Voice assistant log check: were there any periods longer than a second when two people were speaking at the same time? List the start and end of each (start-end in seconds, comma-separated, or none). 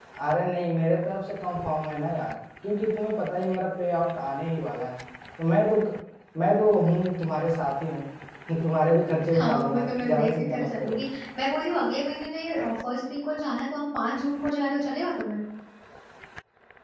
9.3-11.0